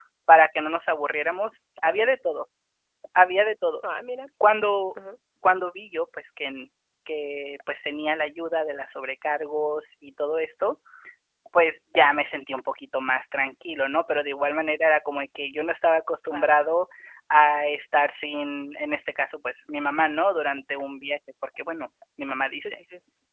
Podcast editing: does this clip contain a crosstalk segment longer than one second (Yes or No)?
No